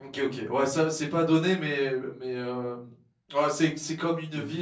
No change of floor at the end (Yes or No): Yes